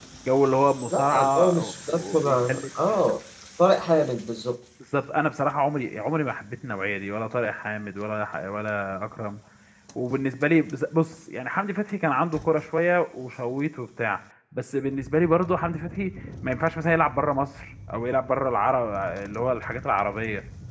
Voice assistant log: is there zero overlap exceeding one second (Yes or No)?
No